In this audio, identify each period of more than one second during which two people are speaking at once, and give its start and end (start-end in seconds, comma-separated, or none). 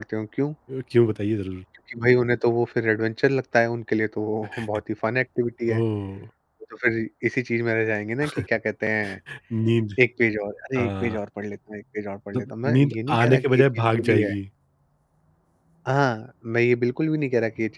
12.3-14.3